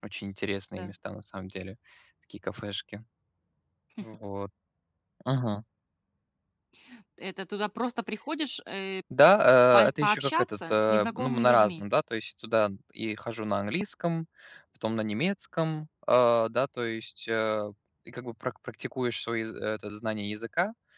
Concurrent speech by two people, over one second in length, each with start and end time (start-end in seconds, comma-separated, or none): 9.7-11.8